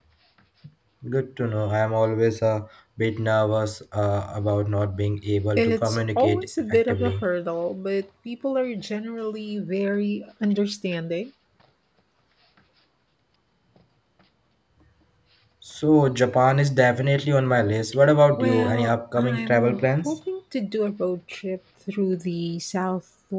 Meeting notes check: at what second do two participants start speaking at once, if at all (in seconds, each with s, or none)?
5.6 s